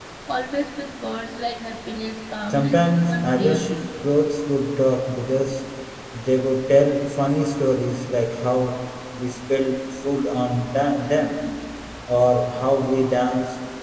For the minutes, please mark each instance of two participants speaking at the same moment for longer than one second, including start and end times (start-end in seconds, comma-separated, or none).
2.5-3.9